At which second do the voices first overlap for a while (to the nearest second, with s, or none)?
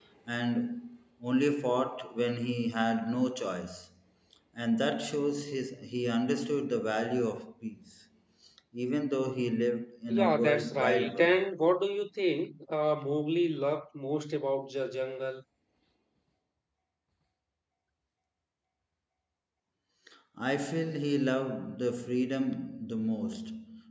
10 s